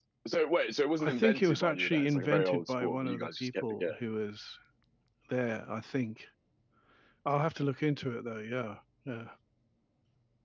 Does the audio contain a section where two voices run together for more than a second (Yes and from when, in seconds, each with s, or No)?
Yes, from 1.0 s